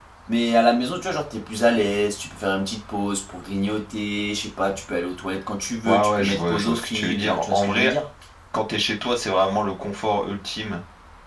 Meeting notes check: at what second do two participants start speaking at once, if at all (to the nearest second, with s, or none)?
6 s